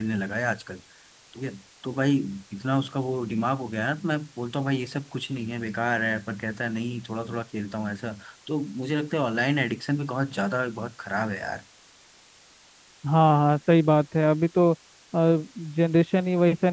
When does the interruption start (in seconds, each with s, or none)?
none